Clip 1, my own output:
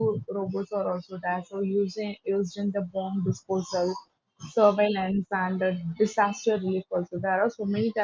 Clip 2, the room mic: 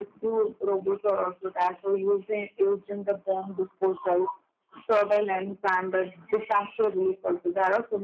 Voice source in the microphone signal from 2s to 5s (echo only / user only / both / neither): echo only